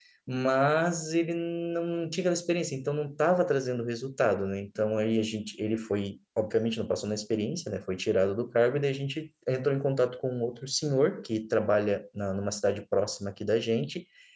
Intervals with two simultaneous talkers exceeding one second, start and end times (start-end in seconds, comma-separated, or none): none